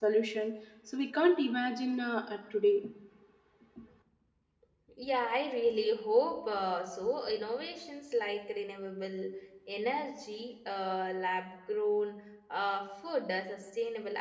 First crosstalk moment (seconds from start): none

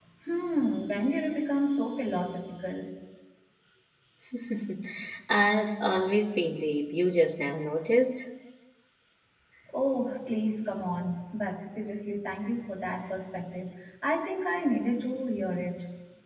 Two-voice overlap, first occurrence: none

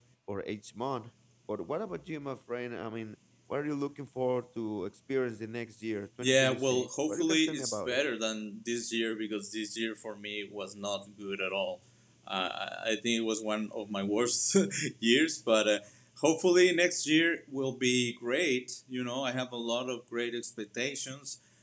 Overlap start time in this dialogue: 6.2 s

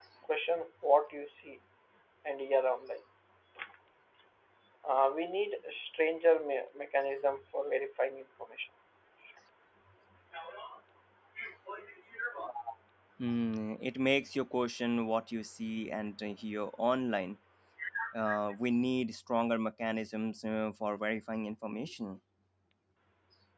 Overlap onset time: none

